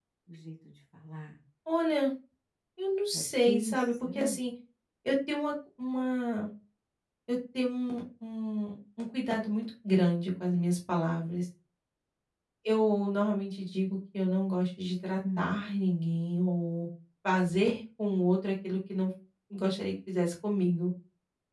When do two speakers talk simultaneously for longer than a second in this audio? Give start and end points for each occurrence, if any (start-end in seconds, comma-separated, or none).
3.1-4.4